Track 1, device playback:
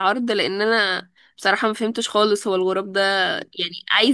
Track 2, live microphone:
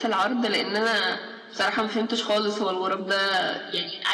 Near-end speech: none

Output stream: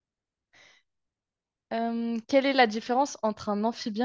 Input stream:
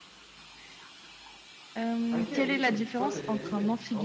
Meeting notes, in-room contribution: present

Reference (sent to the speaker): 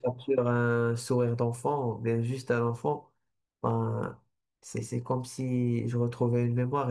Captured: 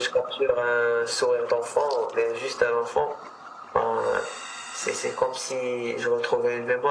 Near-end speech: none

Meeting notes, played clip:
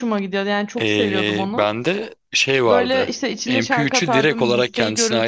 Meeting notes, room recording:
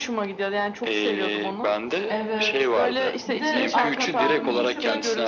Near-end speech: present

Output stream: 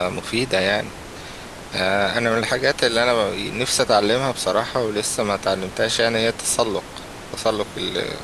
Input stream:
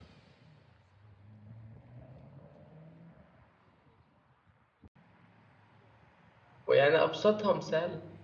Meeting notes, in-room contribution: present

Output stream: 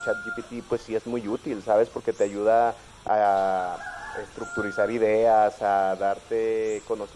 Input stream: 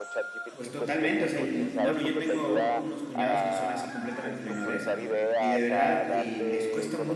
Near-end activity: present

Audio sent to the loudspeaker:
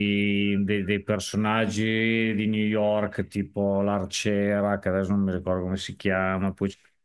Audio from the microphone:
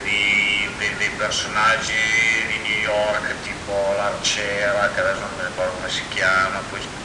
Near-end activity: none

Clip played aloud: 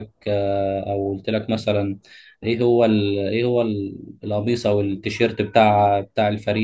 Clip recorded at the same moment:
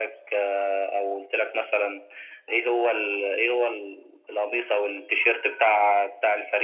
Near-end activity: none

